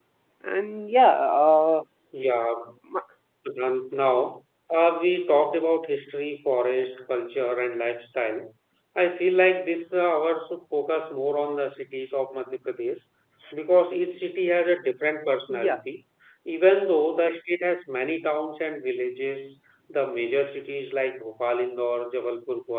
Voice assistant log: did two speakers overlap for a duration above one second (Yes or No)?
No